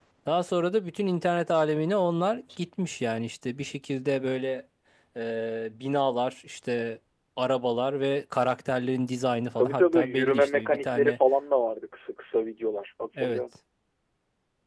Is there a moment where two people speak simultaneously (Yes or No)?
Yes